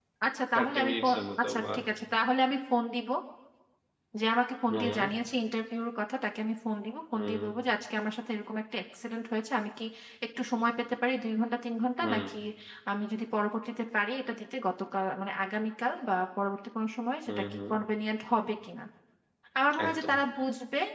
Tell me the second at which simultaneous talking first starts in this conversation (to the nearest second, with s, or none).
1 s